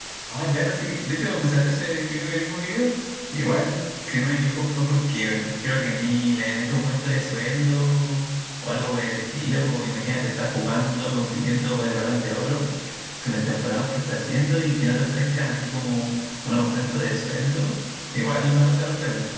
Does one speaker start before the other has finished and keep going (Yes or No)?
No